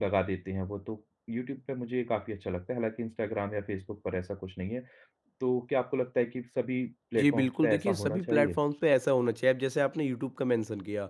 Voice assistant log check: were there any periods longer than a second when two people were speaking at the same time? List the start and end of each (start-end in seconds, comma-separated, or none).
7.2-8.6